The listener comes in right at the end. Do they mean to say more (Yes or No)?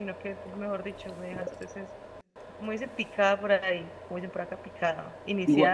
No